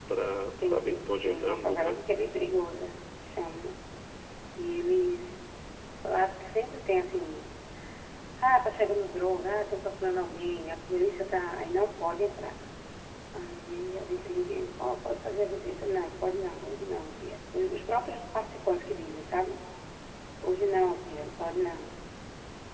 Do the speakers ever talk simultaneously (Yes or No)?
Yes